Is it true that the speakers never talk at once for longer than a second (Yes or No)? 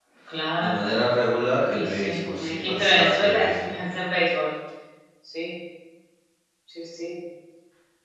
No